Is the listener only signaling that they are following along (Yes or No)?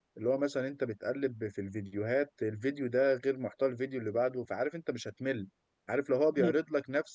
Yes